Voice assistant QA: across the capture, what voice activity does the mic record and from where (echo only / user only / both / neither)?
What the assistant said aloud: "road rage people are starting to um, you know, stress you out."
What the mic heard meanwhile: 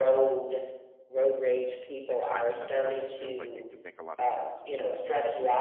both